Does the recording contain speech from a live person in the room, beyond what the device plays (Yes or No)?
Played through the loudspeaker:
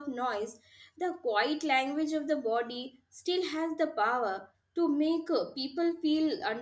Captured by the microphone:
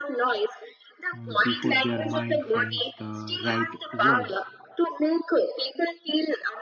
Yes